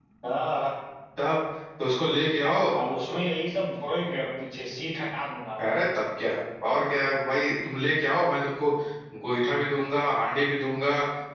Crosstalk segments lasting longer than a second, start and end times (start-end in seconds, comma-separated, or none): none